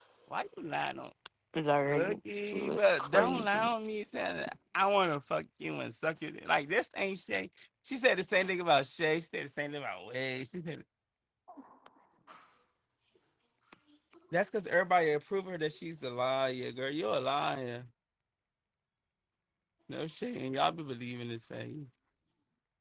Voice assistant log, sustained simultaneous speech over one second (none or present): present